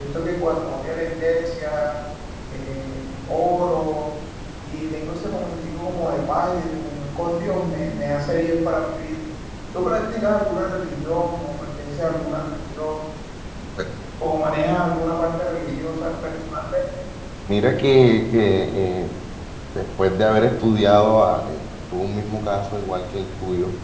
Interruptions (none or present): none